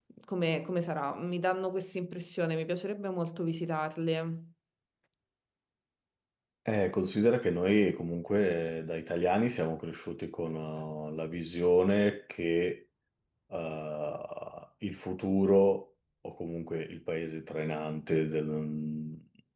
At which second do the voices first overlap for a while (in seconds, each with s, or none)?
none